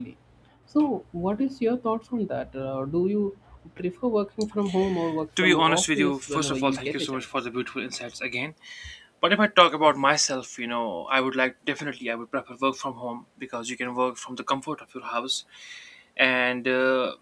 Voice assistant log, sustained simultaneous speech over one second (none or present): present